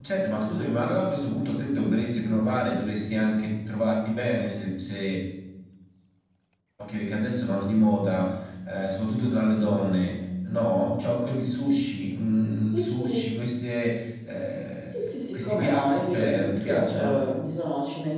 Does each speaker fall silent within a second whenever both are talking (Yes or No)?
No